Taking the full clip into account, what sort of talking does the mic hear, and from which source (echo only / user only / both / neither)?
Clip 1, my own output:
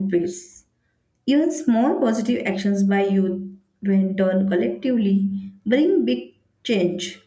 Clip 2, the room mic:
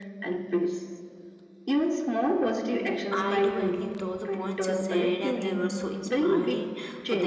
both